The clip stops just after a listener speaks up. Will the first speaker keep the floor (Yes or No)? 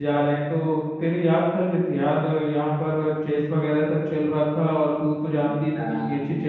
No